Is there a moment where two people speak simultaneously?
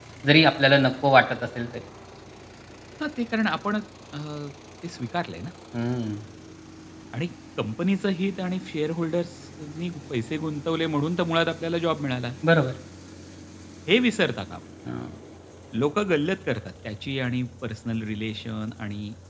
No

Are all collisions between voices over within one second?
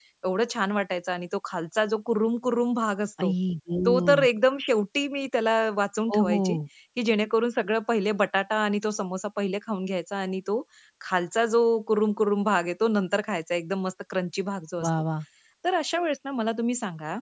Yes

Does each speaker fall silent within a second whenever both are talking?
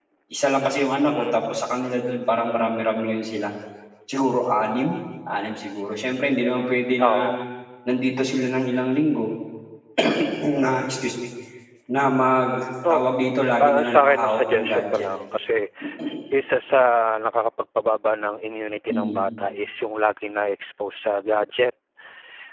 No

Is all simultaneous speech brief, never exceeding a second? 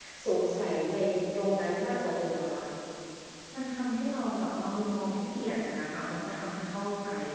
Yes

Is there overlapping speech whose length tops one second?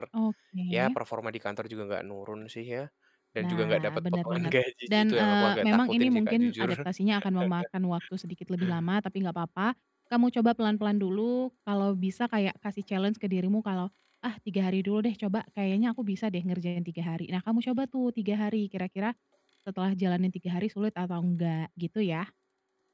Yes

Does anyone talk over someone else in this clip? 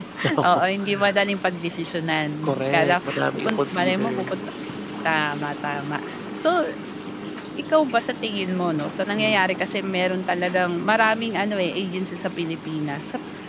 Yes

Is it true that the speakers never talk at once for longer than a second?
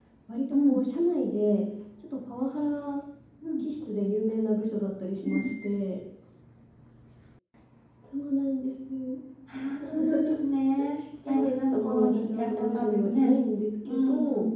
No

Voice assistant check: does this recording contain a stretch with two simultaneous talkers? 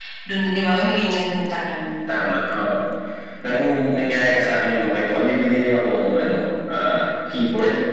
No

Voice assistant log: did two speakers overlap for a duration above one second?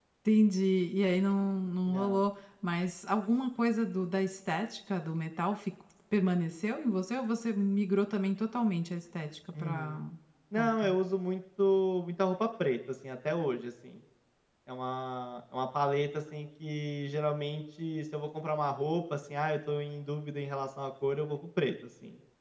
No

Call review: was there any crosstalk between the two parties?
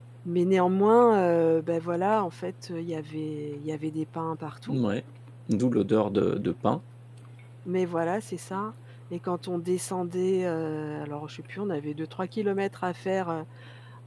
No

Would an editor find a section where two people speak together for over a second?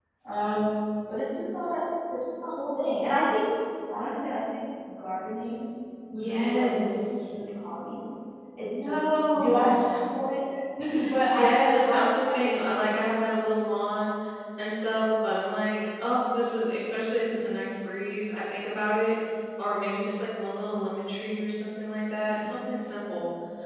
Yes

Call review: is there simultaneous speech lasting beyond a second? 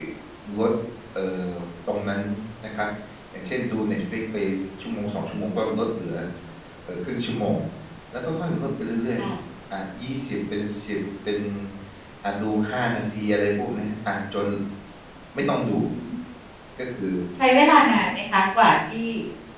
No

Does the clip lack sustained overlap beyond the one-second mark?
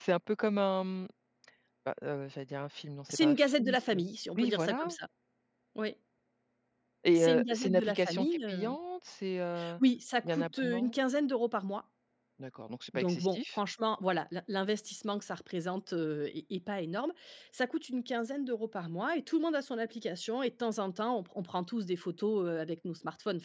No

